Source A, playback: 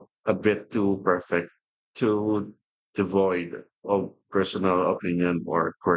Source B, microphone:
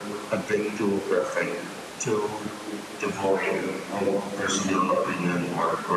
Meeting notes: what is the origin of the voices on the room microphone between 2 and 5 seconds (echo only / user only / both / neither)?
echo only